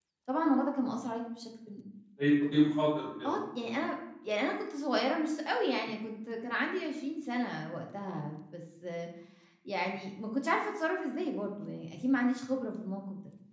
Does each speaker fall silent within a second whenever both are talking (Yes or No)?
Yes